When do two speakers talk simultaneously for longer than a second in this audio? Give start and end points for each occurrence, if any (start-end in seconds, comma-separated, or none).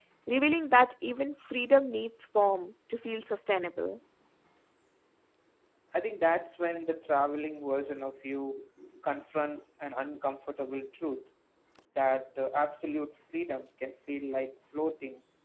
none